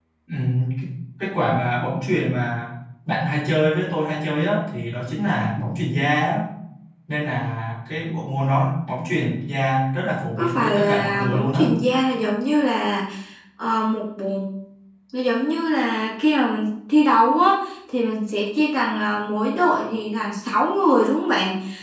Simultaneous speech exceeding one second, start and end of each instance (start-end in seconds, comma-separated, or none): 10.4-11.6